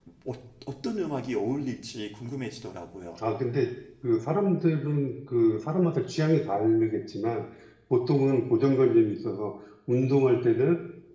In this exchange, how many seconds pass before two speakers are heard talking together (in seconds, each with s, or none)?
none